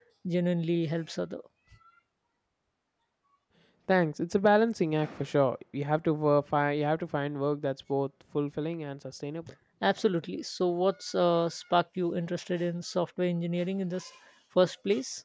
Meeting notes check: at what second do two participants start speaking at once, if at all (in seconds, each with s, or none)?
none